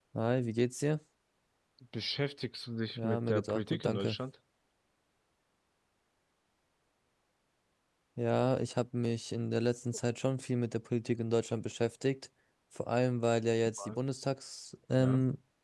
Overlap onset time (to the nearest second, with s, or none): 3 s